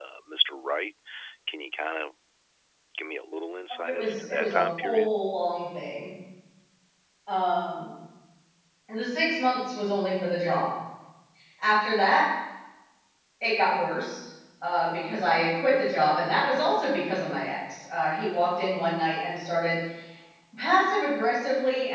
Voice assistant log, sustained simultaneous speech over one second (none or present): present